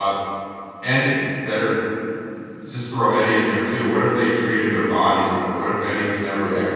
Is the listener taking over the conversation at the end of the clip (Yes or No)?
No